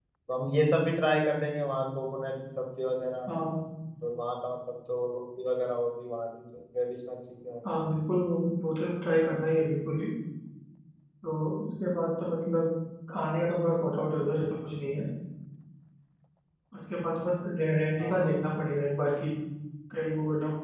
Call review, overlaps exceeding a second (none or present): none